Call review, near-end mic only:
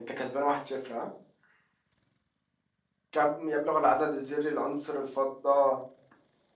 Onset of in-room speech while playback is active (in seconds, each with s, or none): none